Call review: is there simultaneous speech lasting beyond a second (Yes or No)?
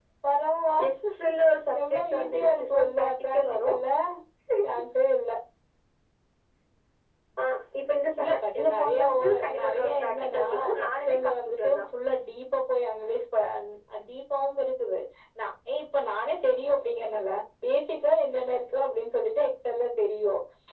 Yes